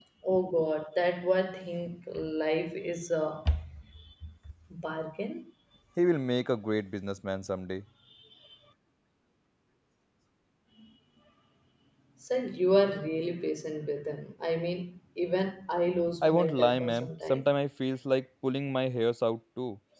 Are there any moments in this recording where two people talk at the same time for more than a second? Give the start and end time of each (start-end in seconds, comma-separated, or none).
16.2-17.5